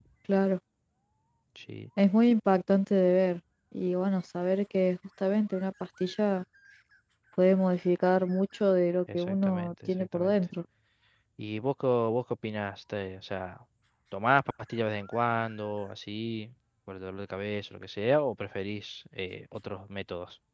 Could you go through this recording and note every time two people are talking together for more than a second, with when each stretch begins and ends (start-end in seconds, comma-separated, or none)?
9.1-10.4